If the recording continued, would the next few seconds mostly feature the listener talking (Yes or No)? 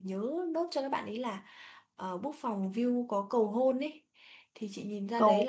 No